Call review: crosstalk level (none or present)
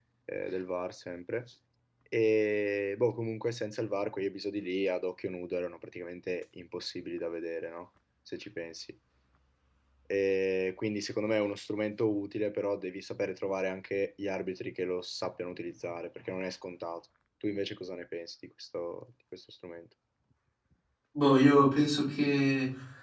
none